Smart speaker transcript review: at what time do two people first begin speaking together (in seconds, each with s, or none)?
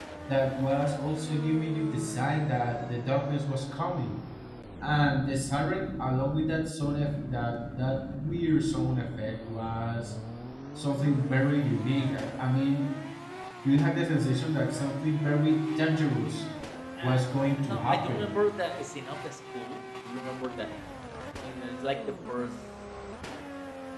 17.0 s